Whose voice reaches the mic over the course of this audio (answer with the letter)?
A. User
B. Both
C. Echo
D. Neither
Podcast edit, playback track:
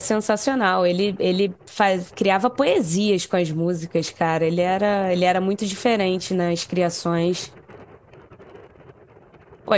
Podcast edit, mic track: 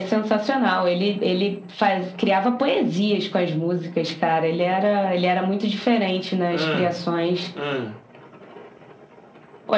B